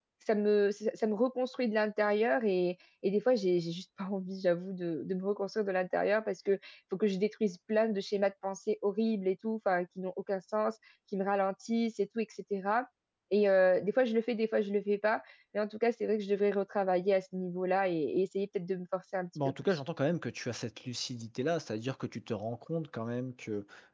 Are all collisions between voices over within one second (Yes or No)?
Yes